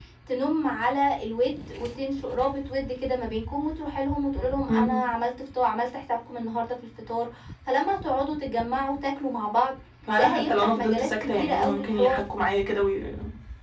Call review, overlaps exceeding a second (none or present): present